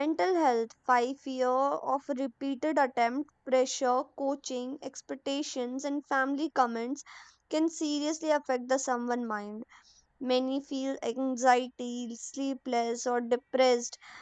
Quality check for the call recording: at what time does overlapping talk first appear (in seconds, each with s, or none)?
none